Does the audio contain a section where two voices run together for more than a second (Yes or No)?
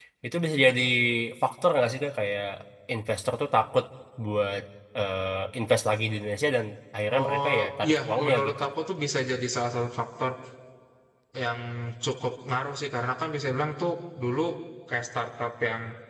Yes